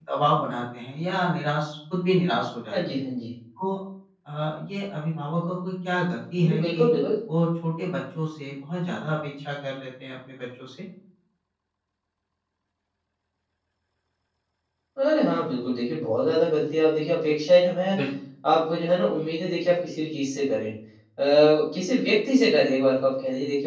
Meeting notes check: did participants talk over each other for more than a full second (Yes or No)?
No